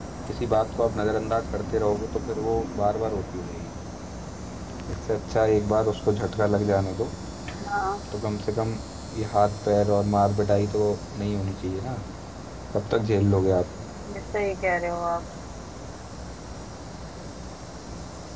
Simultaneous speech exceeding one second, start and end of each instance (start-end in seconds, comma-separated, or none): none